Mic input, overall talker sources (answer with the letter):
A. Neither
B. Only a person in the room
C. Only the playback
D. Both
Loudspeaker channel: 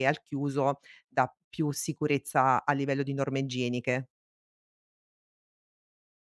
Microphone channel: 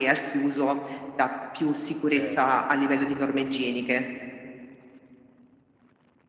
D